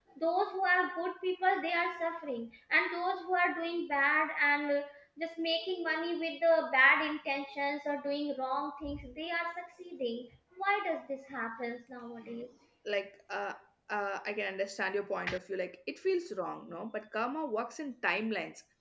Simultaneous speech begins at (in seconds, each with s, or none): none